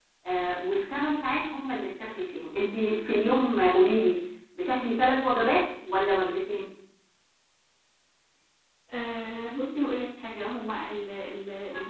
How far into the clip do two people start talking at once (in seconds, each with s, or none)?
none